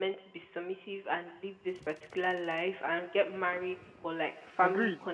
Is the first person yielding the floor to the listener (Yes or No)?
Yes